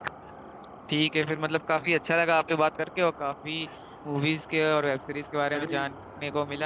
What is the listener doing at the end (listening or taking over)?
taking over